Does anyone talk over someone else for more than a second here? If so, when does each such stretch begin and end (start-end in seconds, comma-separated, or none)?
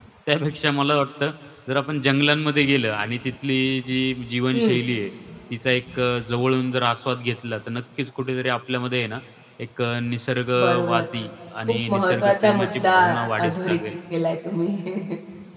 11.6-12.9